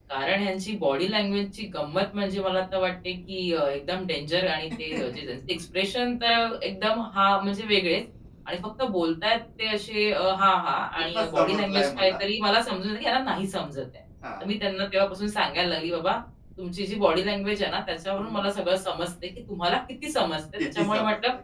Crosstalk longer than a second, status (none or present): present